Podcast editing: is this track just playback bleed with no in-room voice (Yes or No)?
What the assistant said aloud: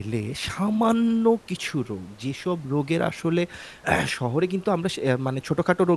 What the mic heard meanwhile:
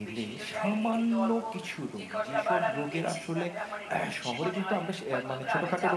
No